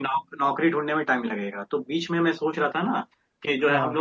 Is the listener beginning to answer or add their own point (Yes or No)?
No